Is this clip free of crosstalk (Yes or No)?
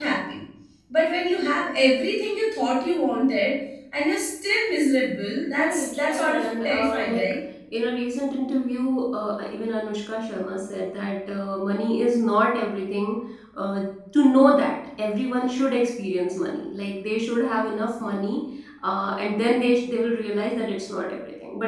No